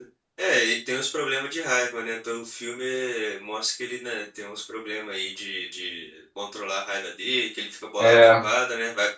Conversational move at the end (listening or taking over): listening